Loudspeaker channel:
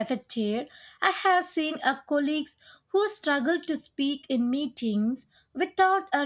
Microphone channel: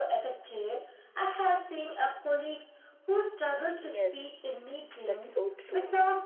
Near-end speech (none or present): present